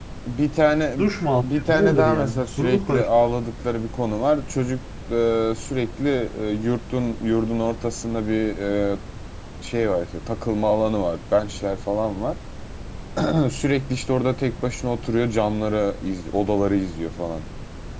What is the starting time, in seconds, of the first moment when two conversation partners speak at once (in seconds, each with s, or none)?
1.4 s